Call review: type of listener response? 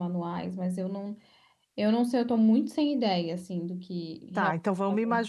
taking over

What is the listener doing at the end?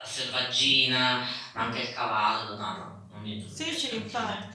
taking over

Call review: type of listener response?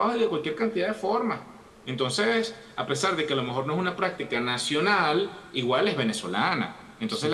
listening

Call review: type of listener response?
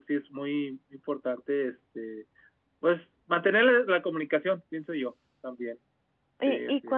taking over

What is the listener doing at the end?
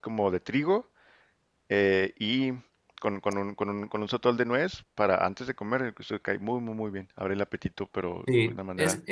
taking over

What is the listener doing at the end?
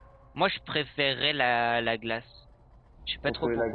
taking over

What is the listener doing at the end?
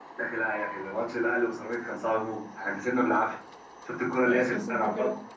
taking over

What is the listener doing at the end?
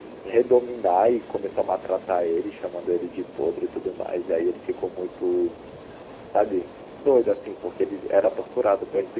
listening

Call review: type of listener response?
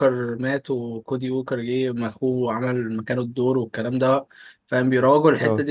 listening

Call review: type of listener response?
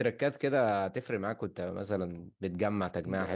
taking over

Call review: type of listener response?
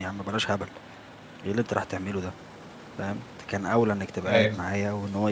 listening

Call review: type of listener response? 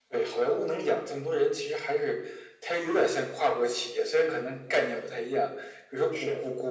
listening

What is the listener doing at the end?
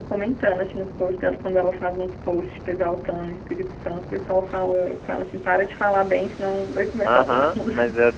taking over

